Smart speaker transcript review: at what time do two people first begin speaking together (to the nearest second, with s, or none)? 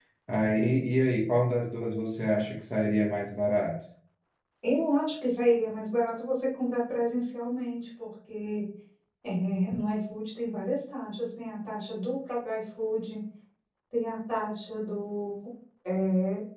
none